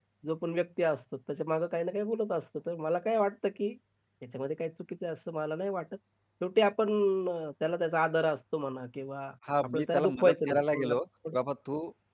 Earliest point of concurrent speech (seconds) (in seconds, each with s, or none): 9.5 s